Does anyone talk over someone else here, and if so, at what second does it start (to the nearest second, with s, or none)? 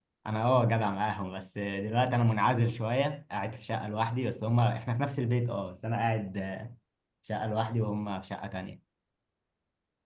none